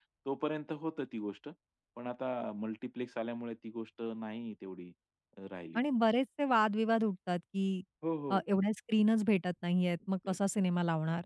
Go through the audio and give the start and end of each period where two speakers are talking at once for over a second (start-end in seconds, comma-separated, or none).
none